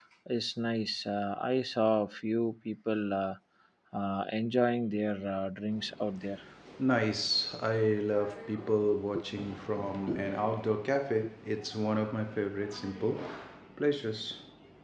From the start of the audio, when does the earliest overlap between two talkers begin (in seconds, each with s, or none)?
none